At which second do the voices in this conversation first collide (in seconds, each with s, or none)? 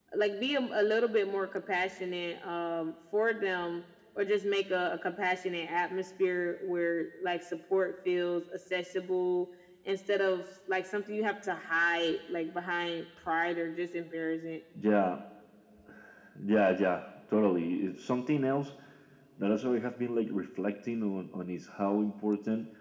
none